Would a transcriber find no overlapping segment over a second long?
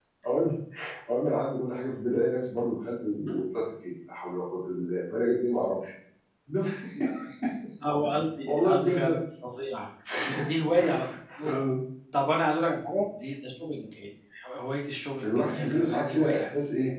No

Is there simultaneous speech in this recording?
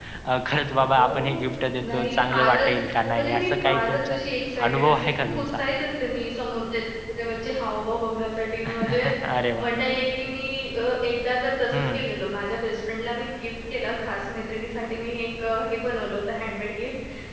Yes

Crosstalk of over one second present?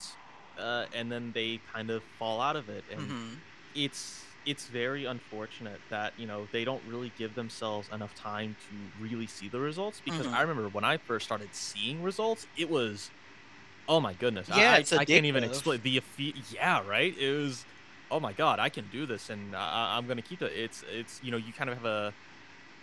Yes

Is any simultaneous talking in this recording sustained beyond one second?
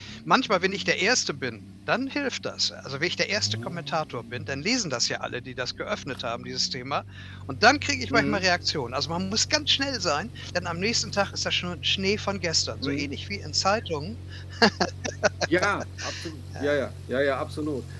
No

